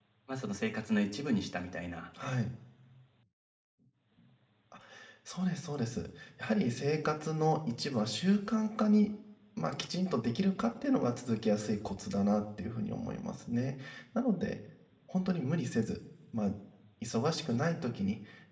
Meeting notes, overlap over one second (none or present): none